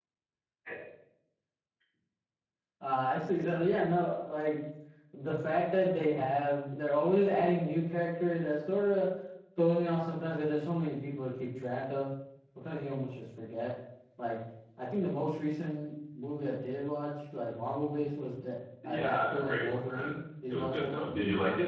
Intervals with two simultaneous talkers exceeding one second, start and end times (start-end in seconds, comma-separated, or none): 18.8-20.1